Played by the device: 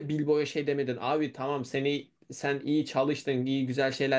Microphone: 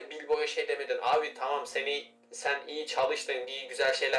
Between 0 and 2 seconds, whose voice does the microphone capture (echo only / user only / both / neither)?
echo only